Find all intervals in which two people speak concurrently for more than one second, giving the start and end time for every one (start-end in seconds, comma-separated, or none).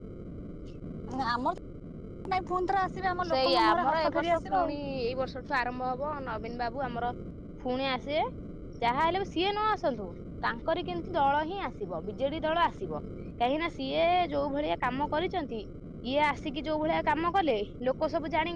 3.3-4.8